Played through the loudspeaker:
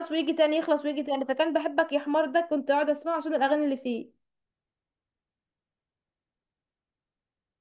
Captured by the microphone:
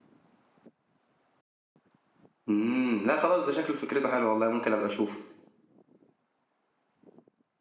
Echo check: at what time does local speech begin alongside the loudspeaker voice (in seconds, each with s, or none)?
2.5 s